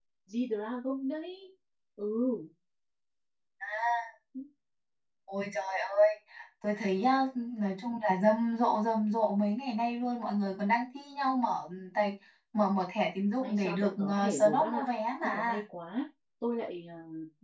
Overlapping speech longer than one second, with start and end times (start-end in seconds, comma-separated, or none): 13.4-14.8